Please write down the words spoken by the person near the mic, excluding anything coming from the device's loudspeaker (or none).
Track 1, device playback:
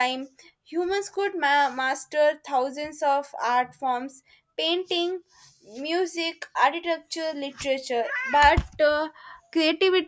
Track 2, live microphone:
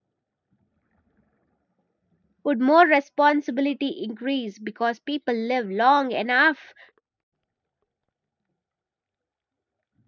Would more responsibility increase because people live long enough